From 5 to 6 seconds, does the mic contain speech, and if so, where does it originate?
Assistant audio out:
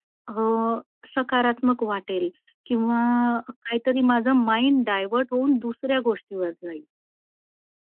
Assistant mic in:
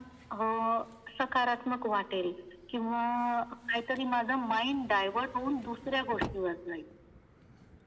echo only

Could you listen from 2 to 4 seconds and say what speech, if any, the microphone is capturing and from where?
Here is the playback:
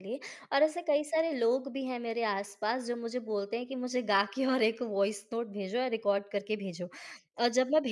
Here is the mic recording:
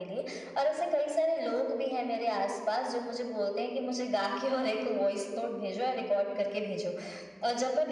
echo only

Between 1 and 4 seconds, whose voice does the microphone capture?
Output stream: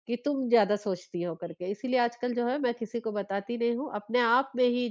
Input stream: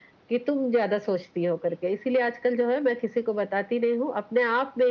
echo only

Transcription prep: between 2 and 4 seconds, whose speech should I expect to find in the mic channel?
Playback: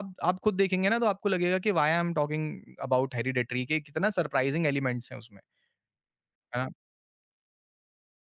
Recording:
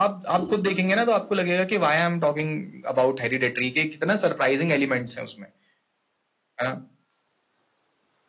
echo only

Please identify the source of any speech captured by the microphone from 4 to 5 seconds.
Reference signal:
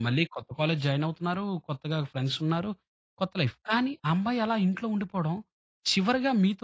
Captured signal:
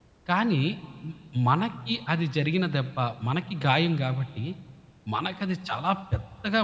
user only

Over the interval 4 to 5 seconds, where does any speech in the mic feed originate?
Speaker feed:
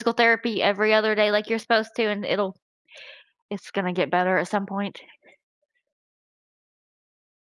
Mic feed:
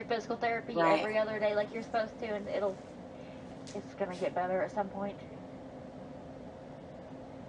echo only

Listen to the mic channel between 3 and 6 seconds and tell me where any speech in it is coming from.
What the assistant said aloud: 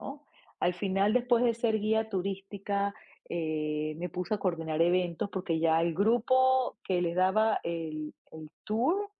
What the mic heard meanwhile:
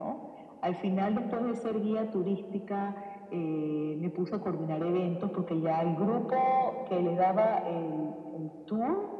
echo only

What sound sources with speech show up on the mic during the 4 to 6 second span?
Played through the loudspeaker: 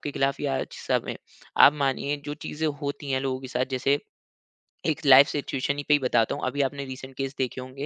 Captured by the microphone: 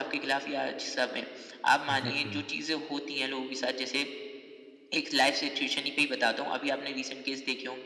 echo only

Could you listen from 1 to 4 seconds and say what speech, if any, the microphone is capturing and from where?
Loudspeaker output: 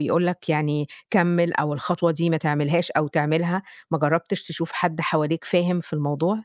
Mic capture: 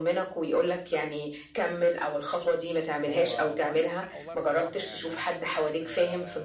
both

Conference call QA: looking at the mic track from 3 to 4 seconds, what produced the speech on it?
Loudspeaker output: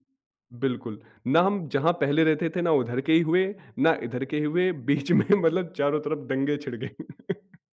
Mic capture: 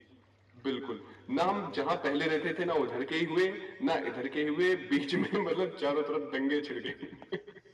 echo only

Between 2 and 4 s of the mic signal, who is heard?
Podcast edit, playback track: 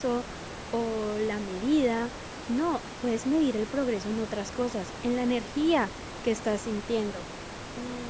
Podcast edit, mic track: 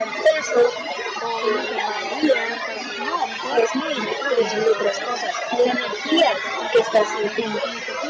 both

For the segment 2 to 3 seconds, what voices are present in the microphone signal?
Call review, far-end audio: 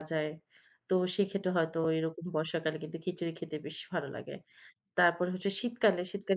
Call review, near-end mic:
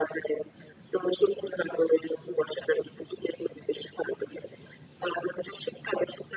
echo only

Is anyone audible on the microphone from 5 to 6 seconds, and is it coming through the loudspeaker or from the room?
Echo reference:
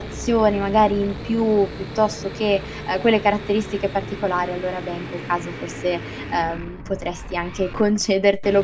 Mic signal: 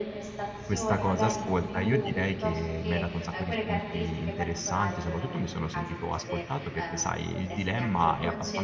both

